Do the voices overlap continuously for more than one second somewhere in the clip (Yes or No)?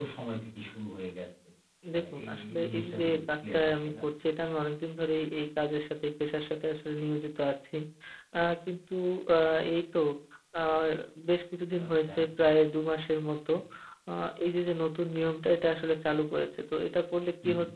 Yes